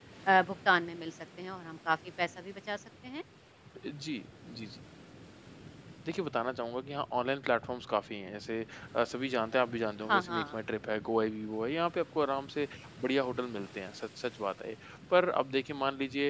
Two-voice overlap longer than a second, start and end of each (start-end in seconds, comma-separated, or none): none